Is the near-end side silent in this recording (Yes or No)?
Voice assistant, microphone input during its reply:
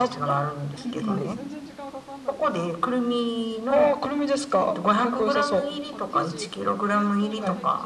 No